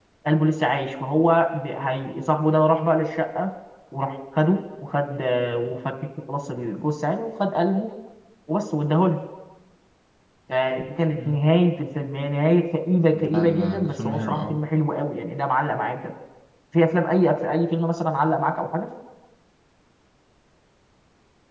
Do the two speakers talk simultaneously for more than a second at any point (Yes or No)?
Yes